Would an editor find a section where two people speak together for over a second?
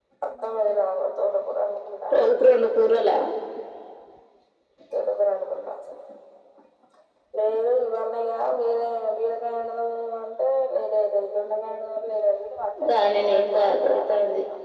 Yes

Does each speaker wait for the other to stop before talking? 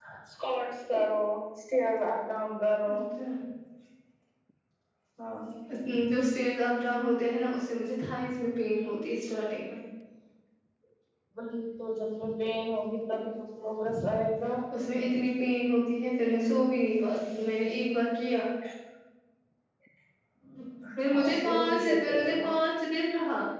No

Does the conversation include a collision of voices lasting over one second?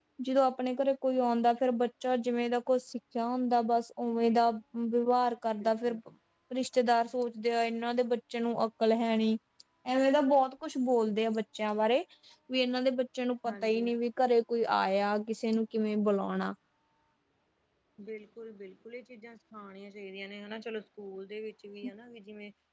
No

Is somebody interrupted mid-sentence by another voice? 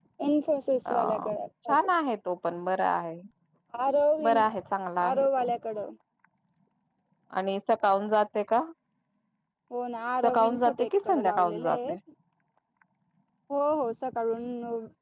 Yes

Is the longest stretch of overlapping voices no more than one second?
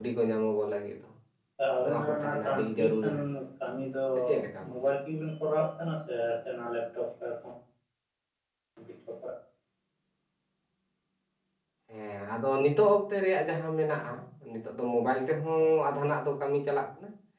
No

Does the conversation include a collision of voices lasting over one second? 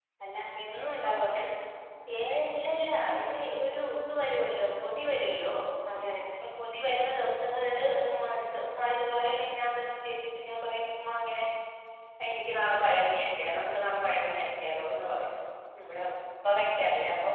No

